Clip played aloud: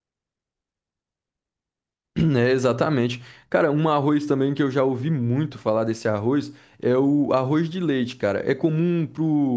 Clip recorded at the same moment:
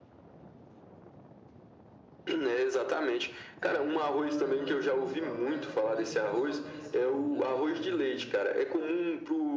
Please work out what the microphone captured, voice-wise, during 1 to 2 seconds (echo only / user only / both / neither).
neither